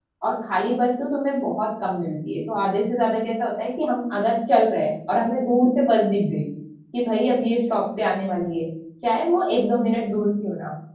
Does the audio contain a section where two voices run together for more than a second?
No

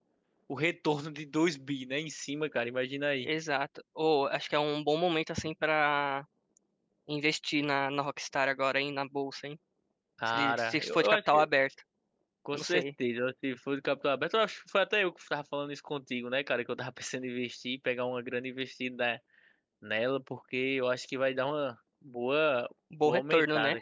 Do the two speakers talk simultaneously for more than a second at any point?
Yes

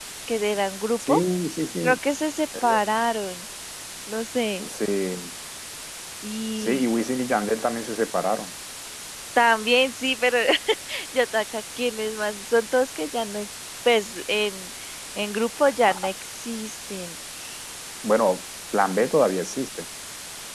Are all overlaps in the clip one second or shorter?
Yes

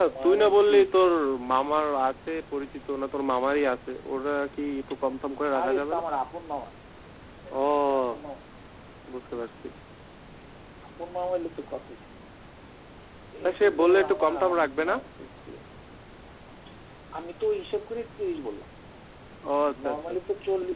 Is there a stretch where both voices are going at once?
Yes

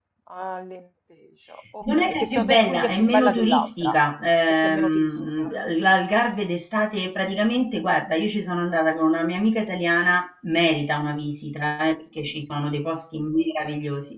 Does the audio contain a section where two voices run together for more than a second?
Yes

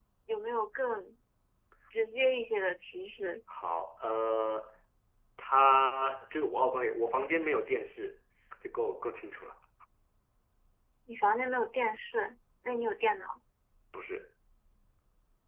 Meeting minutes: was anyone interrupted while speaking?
No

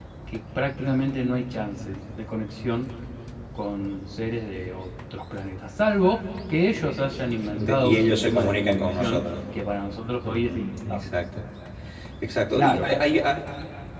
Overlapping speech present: Yes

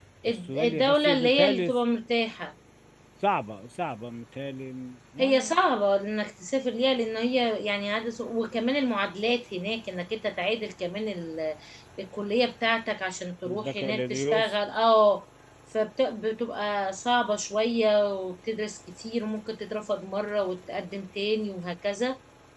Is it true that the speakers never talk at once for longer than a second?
No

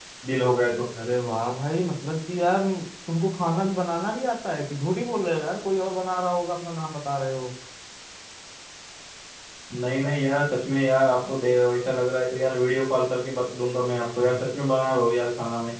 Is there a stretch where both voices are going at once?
No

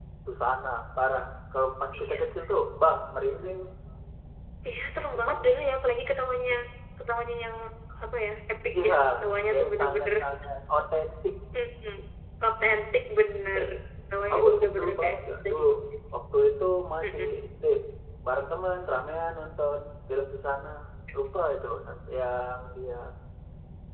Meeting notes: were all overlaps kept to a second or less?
No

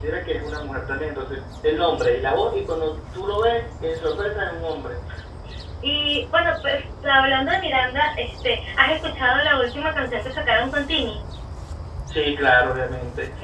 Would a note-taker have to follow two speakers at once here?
No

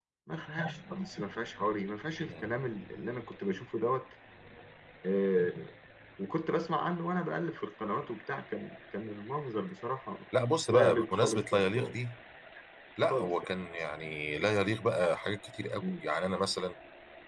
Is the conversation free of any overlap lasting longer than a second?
No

